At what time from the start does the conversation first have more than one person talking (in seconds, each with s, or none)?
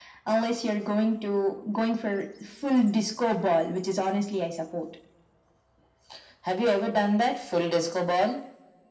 none